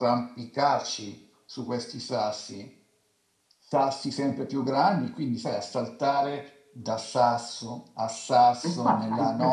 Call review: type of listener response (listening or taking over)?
taking over